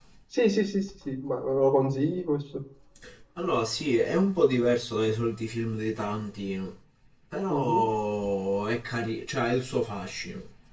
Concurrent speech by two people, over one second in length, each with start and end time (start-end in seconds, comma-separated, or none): none